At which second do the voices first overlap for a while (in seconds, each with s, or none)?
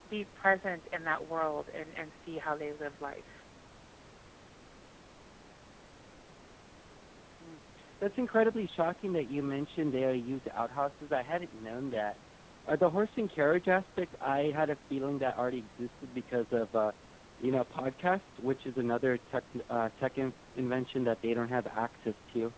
none